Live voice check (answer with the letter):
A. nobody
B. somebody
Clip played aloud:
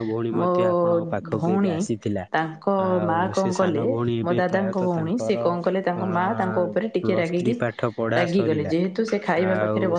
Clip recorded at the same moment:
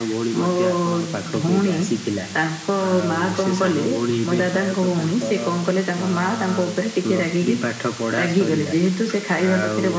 A